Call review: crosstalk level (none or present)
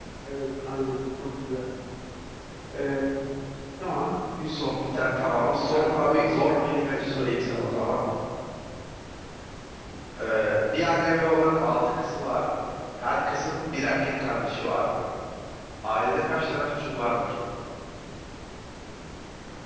present